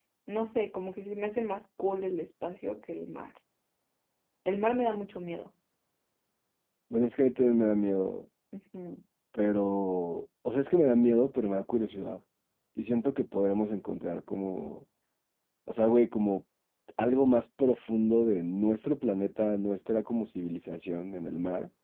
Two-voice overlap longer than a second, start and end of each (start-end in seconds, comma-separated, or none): none